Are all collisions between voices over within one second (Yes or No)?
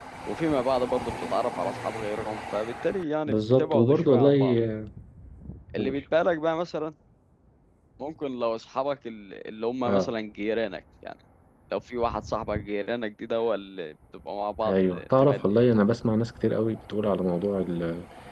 No